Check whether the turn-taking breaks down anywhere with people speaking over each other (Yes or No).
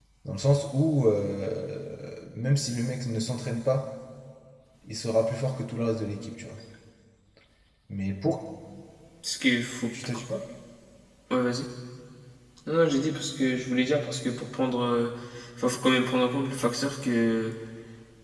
No